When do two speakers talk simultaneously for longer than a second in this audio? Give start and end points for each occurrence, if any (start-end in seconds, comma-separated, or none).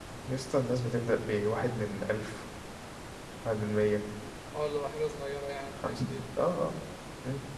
none